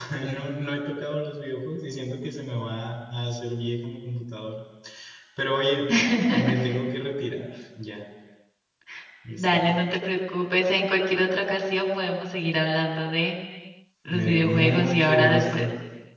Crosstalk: present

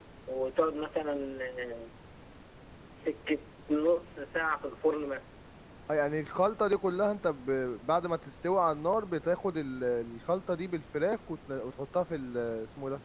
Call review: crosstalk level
none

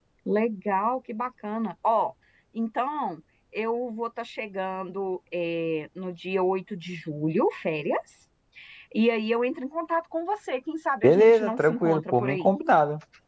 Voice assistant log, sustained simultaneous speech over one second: present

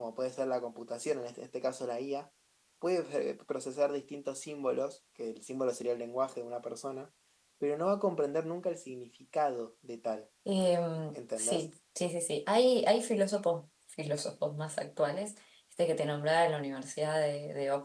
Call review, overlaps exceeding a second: none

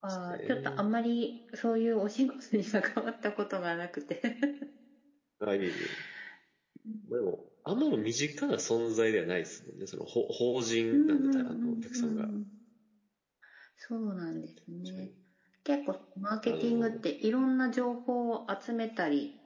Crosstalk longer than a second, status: present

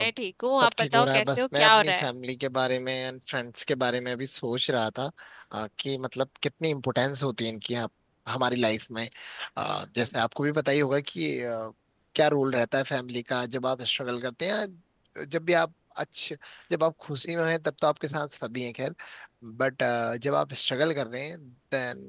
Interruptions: present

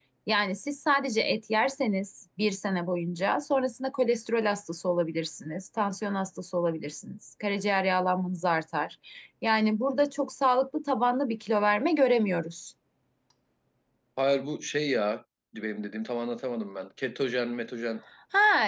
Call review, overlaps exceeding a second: none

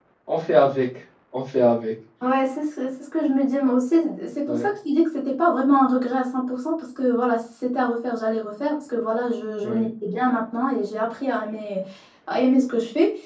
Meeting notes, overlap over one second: none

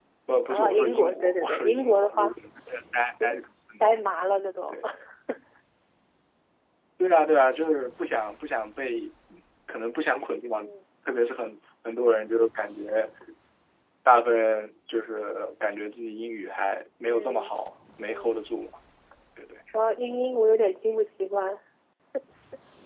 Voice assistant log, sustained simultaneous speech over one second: present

